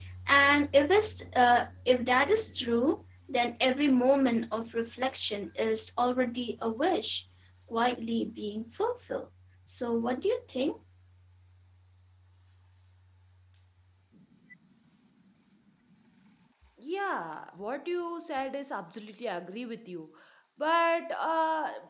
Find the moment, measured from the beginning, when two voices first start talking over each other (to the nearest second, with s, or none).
none